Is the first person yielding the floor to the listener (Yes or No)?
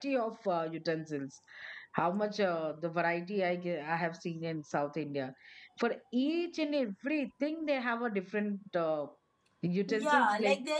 Yes